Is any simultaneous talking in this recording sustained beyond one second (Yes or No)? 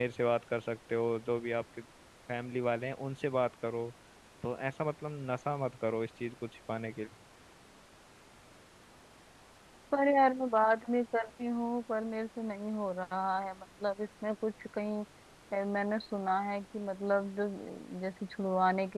No